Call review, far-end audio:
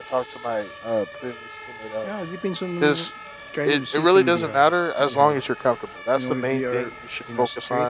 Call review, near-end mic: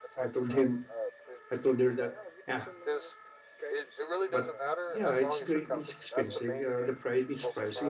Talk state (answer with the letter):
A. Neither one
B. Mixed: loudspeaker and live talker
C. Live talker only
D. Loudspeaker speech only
B